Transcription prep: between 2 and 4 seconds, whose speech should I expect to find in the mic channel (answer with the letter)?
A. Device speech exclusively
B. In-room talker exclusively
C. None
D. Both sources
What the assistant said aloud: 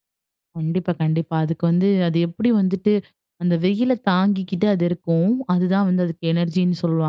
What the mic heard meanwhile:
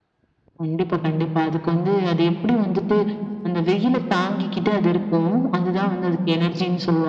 A